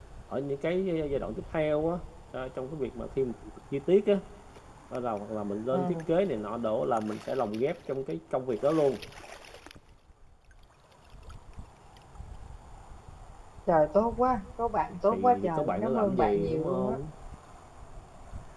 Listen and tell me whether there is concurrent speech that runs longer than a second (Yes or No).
Yes